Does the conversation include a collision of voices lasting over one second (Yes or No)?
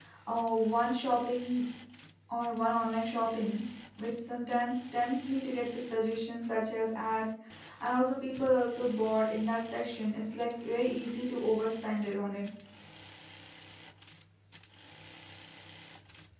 No